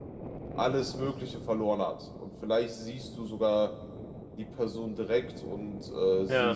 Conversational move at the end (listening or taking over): listening